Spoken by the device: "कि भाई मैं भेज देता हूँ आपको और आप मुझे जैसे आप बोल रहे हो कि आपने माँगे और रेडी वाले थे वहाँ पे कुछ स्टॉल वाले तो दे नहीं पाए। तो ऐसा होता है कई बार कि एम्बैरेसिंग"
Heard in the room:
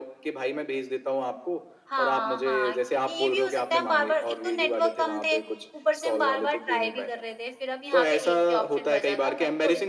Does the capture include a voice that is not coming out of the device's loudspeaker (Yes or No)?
Yes